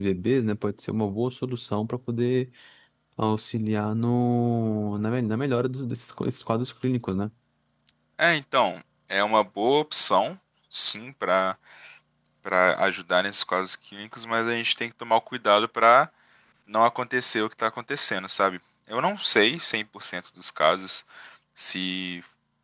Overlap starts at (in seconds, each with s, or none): none